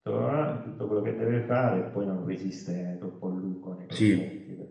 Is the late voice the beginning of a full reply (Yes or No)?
Yes